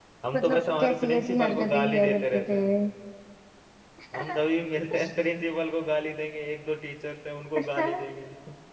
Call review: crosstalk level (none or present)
present